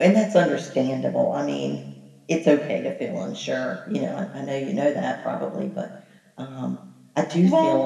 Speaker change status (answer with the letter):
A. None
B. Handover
A